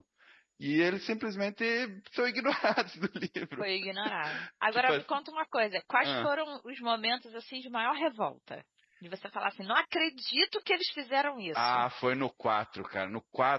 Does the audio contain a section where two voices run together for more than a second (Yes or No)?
No